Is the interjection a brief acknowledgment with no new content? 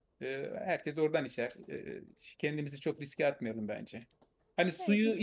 Yes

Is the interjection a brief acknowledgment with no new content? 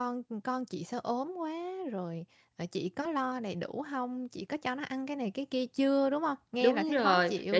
No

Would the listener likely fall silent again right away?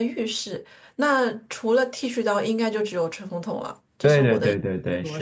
No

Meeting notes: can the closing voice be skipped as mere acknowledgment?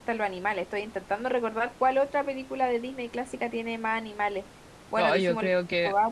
No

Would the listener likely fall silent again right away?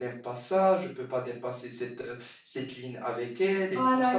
No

